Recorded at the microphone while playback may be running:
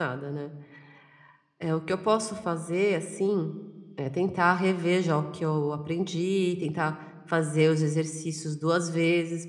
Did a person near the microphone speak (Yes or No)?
Yes